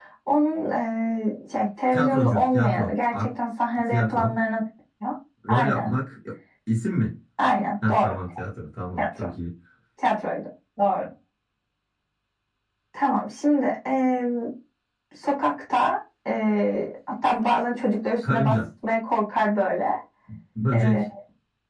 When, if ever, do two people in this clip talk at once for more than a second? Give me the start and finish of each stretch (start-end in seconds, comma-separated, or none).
1.9-3.3